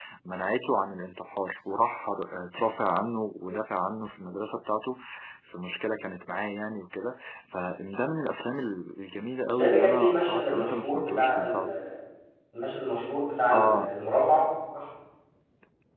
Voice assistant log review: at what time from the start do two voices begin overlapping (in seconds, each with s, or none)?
9.4 s